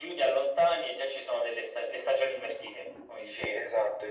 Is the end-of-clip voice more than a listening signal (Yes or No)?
Yes